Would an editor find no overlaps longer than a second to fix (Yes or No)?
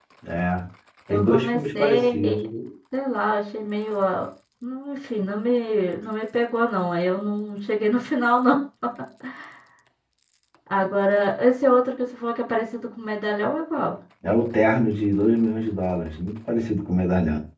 No